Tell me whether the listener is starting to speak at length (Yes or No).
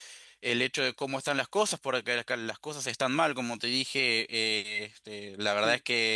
No